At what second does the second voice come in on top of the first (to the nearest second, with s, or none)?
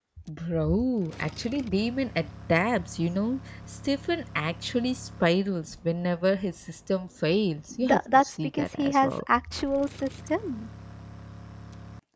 8 s